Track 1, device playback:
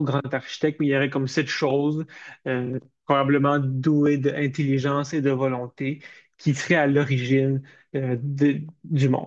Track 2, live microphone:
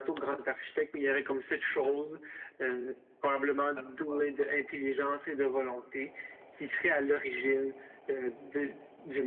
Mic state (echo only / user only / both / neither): both